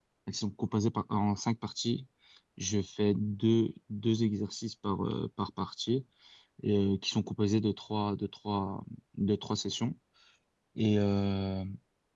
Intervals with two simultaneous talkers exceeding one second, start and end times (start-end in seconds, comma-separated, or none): none